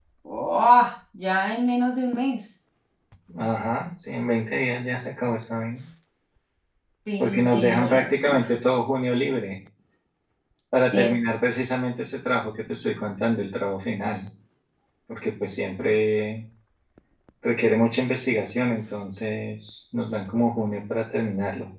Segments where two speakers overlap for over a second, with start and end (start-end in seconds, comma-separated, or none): 7.2-8.4